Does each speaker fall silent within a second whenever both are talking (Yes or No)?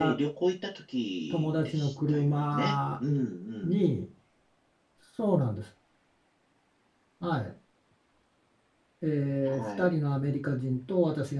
No